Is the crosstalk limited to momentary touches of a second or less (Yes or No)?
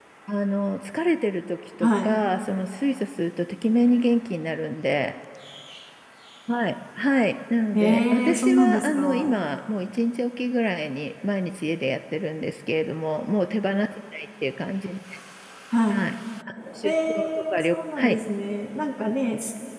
No